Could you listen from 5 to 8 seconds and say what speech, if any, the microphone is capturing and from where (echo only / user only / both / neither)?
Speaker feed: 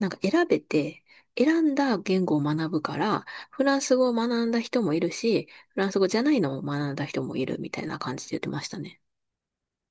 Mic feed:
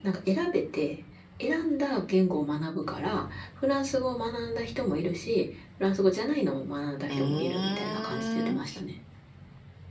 both